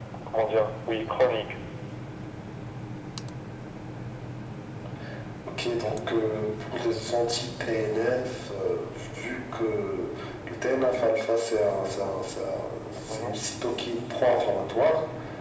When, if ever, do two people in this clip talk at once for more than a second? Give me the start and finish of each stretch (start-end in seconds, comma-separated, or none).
none